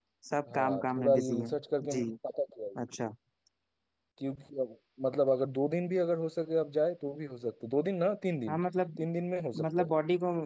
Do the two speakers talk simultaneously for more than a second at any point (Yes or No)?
Yes